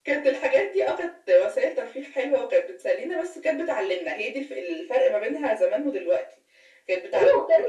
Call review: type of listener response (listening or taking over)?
taking over